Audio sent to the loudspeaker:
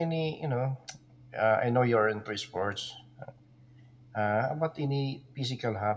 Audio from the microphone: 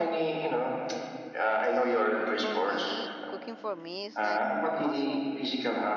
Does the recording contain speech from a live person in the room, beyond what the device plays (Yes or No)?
Yes